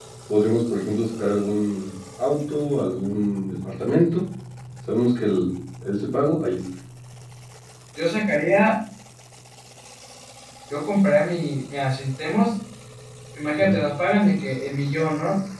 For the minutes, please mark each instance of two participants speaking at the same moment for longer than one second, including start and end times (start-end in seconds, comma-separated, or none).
none